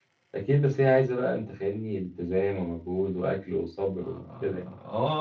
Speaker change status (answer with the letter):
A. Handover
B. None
A